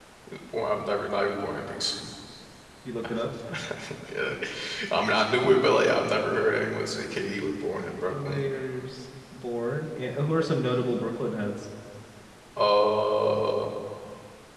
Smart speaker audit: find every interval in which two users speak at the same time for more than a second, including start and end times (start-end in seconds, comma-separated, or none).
none